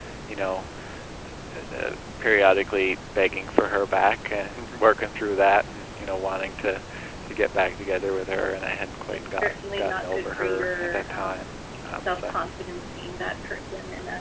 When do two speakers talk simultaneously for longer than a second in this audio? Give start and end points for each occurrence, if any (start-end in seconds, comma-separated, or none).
9.4-11.4